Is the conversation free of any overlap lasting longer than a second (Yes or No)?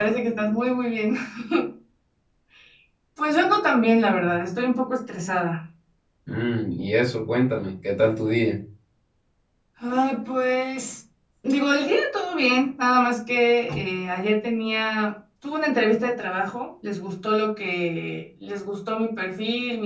Yes